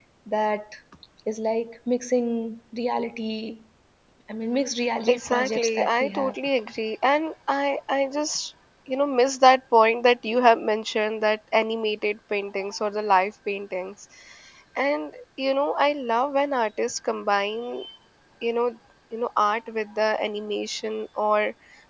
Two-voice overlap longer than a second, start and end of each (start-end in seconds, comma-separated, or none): 5.1-6.3